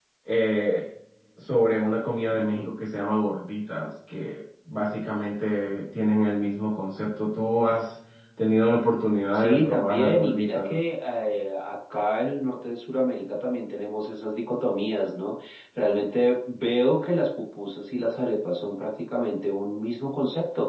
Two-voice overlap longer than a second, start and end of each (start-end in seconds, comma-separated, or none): 9.3-10.8